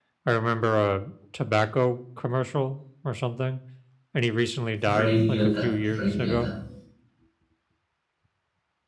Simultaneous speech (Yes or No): Yes